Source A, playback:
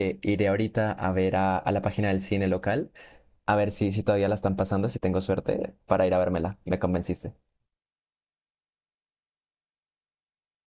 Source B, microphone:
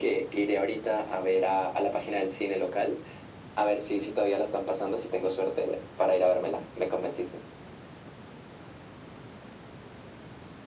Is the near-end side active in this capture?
No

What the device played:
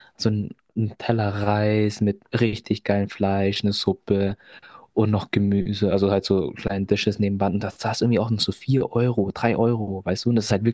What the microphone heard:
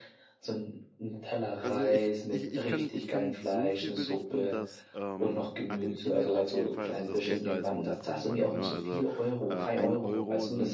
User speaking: Yes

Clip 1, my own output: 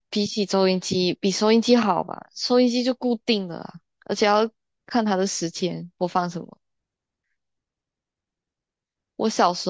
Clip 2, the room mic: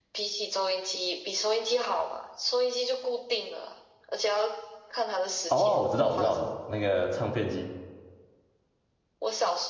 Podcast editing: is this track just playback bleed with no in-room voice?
No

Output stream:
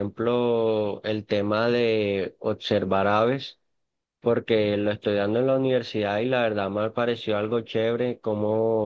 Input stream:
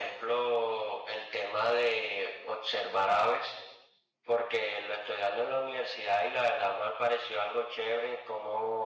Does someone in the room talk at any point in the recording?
No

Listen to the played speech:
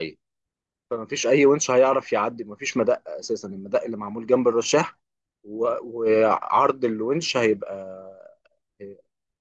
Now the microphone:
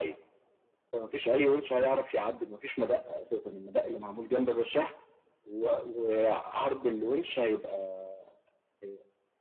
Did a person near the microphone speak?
No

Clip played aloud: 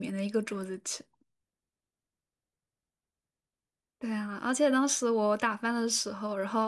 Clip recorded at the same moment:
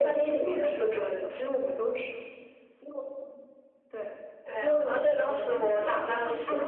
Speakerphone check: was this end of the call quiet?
No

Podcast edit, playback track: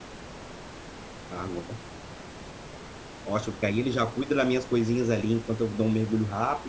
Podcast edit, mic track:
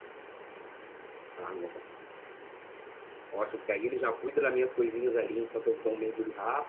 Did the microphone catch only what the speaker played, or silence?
Yes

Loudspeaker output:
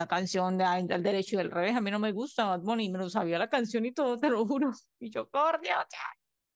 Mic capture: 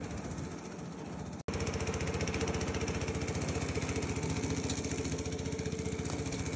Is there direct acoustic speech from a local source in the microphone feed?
No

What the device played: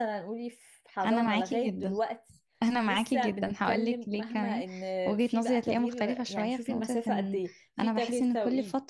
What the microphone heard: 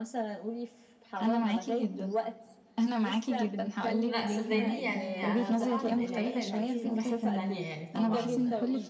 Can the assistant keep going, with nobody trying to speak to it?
No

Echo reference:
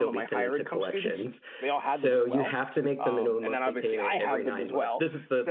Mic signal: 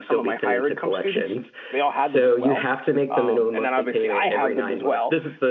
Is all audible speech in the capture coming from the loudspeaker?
Yes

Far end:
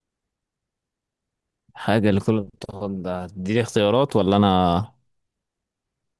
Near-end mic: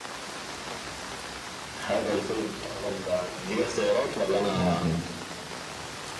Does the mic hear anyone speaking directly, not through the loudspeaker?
Yes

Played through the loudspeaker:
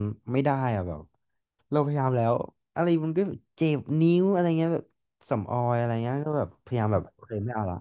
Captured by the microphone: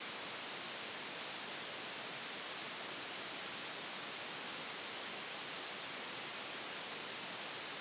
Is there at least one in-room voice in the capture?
No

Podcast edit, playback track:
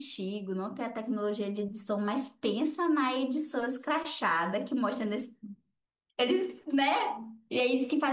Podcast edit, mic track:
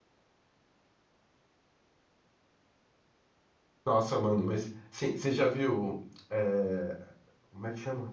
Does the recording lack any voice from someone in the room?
No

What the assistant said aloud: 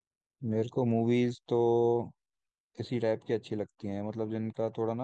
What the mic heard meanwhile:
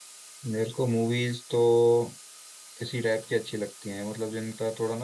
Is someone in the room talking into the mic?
No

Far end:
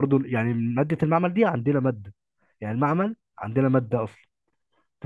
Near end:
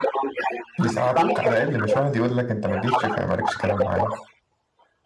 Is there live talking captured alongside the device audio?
Yes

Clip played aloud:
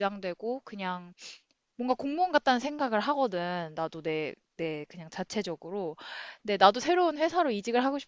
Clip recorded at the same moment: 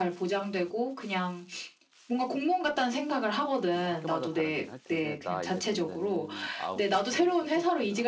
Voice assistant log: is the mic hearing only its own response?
No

